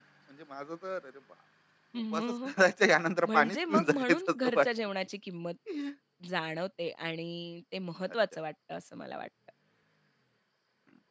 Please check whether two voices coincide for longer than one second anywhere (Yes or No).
Yes